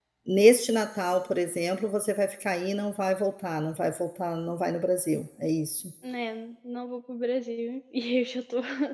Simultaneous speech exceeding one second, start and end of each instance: none

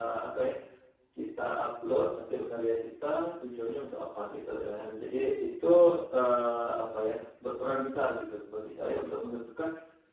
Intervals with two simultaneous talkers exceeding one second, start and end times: none

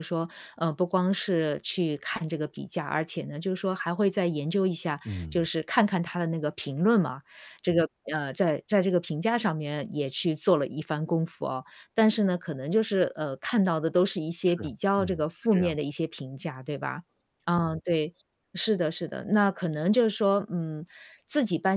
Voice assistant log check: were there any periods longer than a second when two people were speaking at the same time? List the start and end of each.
14.4-15.8

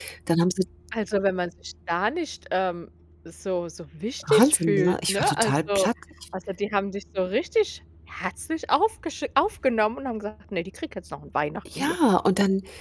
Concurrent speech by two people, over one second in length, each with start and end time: 4.3-5.9

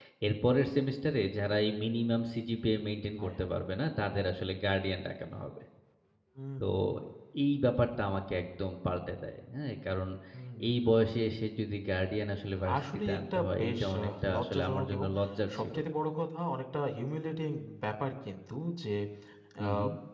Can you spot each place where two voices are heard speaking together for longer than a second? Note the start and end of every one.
12.6-15.1

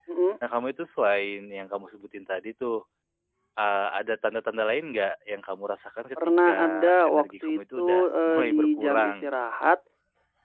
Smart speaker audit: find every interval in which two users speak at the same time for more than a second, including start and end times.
6.2-9.3

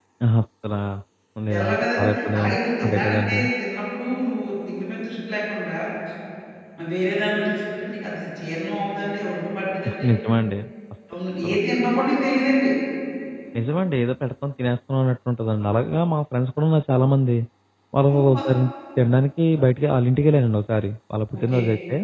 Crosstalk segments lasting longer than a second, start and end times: 1.6-3.4

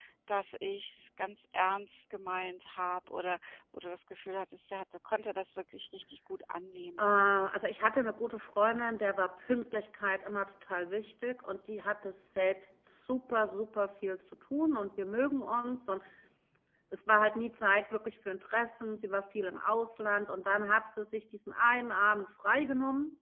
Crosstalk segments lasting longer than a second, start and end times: none

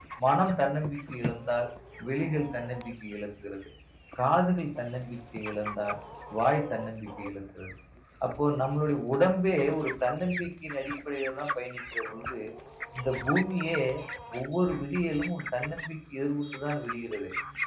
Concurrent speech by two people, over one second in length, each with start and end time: none

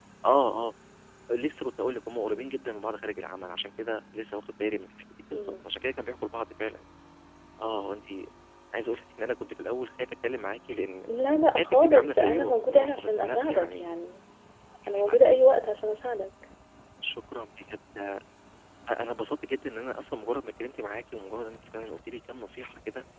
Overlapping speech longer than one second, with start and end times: 11.6-13.8

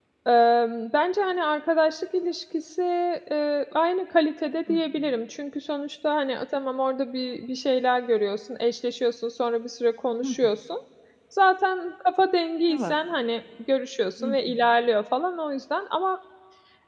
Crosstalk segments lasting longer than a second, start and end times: none

